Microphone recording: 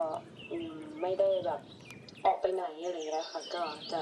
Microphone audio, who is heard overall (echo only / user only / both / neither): echo only